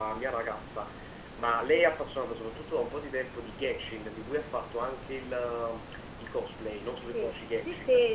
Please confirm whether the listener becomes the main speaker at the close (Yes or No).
Yes